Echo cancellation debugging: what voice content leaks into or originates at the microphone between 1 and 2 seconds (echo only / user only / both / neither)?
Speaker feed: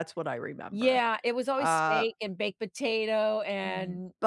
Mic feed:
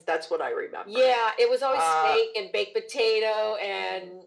echo only